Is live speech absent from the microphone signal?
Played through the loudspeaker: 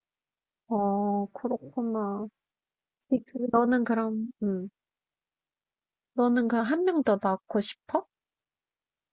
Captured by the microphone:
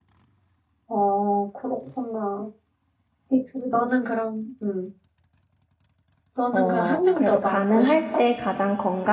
No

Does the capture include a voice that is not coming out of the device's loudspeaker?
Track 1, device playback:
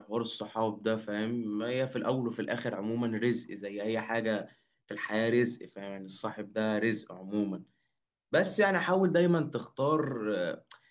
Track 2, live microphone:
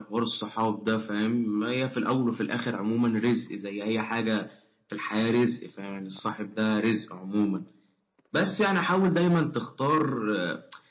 No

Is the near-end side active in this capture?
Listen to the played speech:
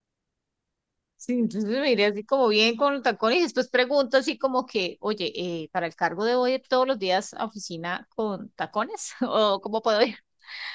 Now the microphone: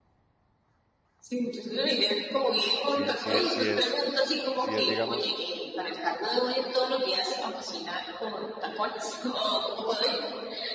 Yes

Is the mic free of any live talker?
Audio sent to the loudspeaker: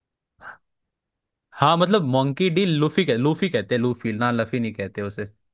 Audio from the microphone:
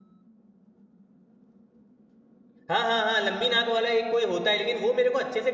No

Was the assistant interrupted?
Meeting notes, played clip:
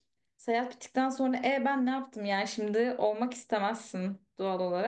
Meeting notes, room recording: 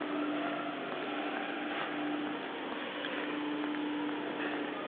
No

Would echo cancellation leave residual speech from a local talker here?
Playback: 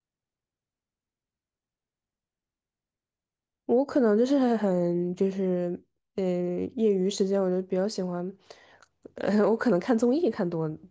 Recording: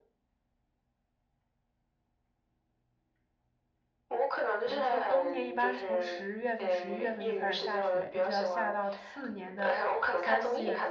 Yes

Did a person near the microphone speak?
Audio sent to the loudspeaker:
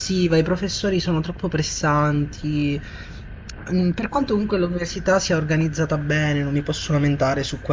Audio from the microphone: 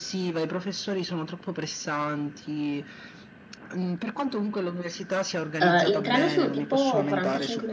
Yes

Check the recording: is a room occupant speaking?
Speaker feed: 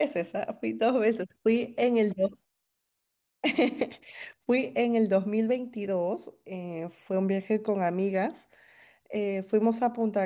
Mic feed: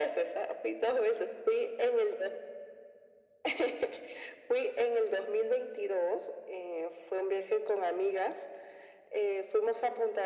No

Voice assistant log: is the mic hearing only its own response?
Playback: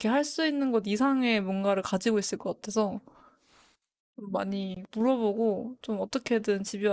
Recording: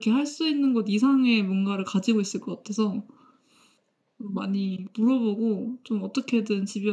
Yes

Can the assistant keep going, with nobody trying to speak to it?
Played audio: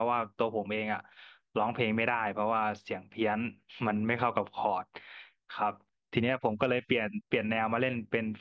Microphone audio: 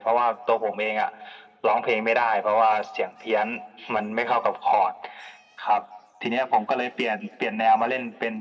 Yes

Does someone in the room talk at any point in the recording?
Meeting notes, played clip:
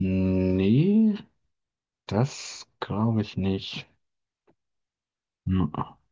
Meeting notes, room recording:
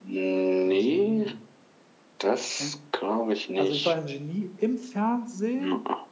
Yes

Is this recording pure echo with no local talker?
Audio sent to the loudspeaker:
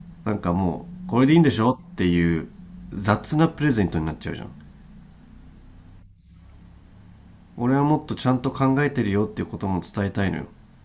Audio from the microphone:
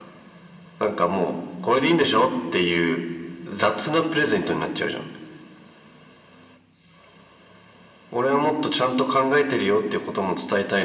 Yes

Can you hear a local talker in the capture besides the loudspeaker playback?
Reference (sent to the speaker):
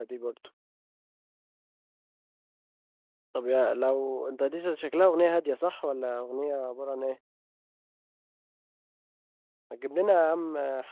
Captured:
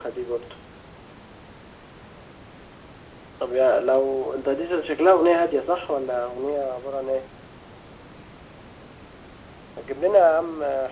No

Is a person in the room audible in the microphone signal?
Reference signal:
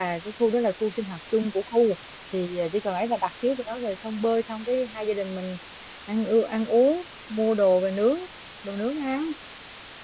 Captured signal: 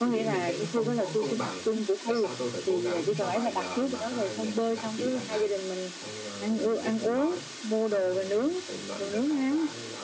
Yes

